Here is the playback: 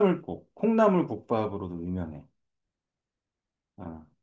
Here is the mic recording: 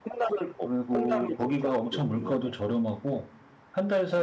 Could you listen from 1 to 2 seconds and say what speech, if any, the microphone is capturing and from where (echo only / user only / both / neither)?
both